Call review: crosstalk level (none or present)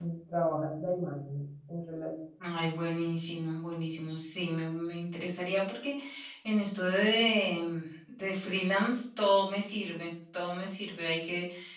none